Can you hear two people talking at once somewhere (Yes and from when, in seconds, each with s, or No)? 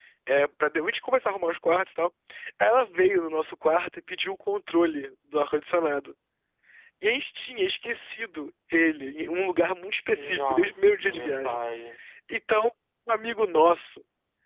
Yes, from 10.4 s